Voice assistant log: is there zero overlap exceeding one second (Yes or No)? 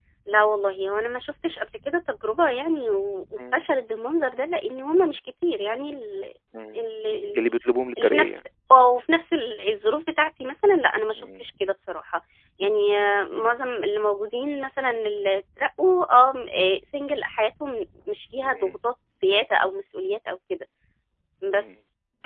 Yes